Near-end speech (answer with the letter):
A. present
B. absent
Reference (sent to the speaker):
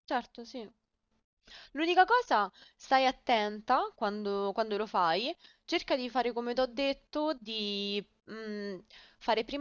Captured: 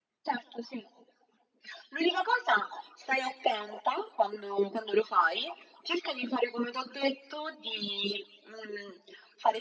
B